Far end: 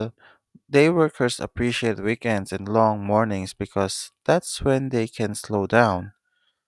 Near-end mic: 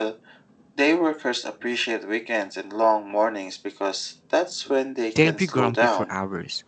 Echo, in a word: present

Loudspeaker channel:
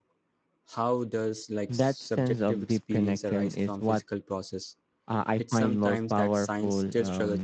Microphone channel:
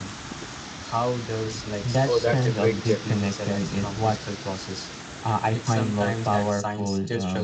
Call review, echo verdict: present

